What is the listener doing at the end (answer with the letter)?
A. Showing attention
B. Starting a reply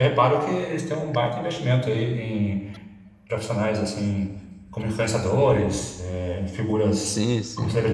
B